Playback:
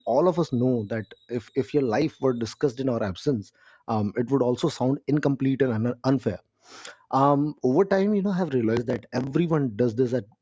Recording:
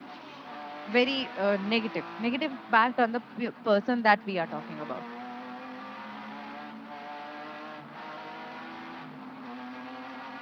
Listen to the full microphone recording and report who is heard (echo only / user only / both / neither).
user only